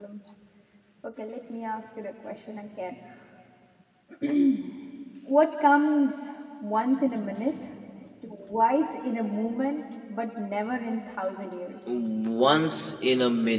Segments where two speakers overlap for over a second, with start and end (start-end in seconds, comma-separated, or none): none